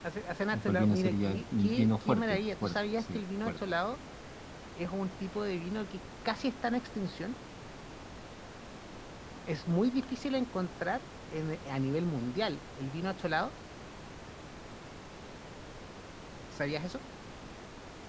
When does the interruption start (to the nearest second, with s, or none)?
1 s